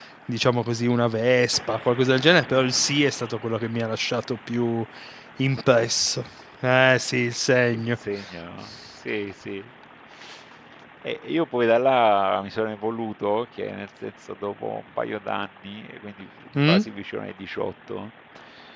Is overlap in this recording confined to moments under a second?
Yes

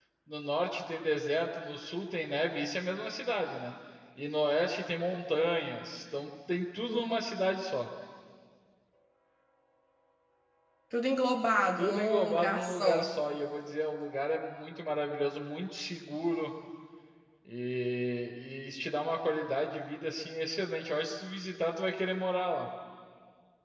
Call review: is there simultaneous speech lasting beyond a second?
Yes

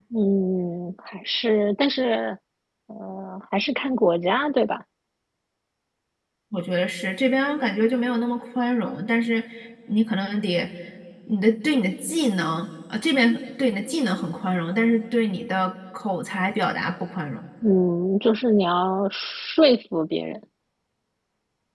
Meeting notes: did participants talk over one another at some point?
No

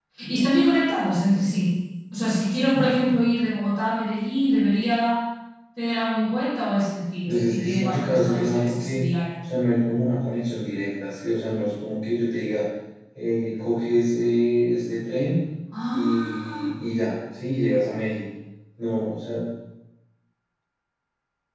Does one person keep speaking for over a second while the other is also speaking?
Yes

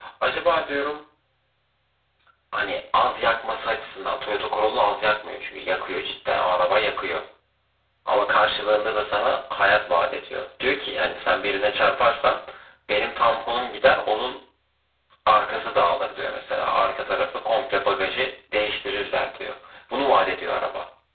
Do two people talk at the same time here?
No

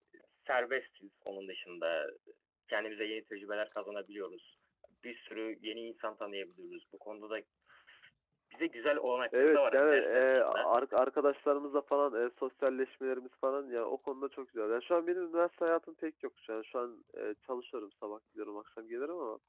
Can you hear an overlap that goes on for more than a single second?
Yes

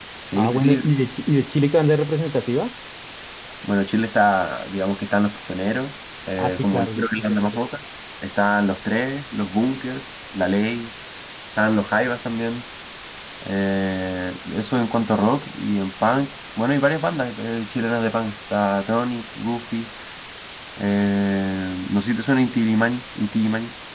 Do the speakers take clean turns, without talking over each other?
No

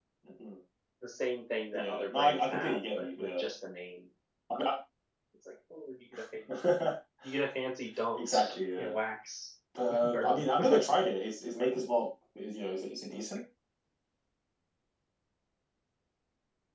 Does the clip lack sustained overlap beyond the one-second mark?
No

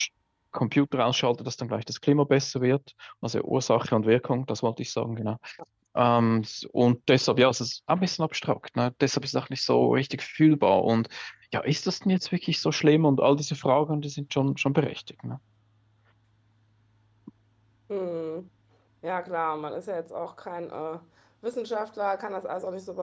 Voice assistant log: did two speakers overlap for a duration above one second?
No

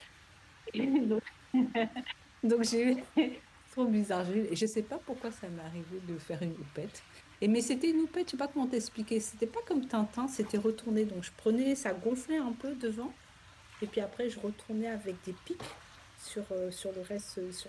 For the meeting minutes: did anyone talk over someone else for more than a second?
No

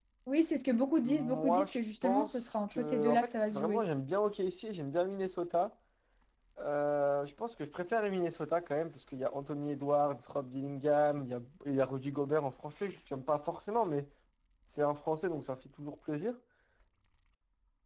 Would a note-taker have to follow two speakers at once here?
Yes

